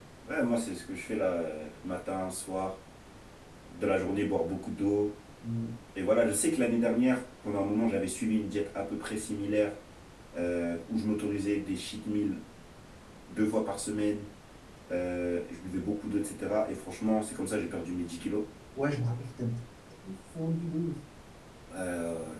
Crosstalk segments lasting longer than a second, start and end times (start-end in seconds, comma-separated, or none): none